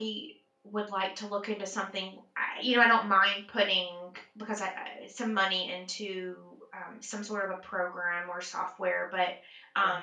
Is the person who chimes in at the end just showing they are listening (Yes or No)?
Yes